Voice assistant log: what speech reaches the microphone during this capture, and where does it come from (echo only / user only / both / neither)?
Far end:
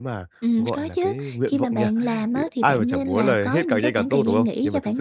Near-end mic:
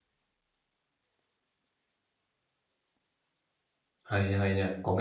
user only